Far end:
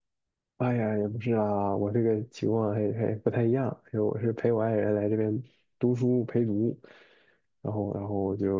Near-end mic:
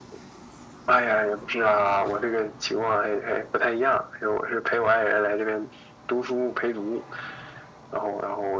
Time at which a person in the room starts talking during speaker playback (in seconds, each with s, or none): none